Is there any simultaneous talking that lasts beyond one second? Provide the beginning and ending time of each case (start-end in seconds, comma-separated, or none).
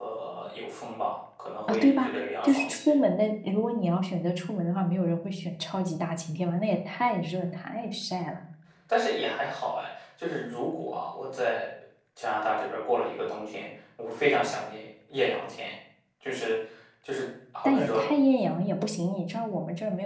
1.7-3.0